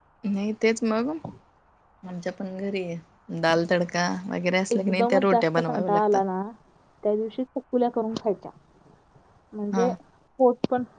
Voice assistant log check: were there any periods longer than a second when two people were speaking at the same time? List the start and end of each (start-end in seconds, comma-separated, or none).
4.7-6.2